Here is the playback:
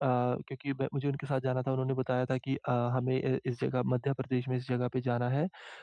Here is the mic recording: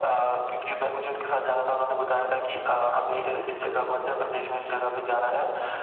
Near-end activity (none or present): none